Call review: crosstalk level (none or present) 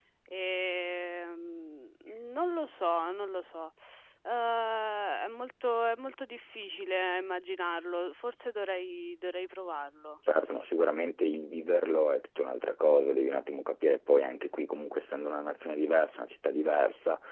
none